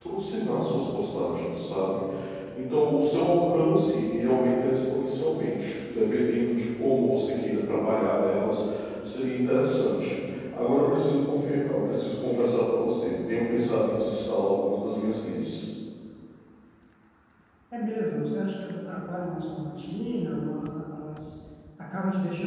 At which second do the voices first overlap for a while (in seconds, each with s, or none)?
none